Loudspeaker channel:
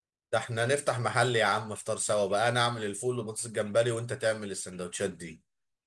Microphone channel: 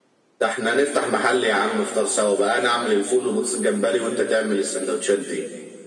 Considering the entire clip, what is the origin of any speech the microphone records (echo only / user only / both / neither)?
echo only